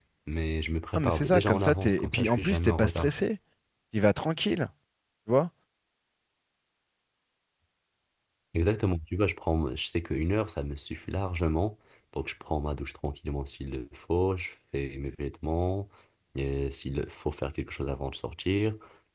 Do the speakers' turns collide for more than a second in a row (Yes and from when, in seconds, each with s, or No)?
Yes, from 1.0 s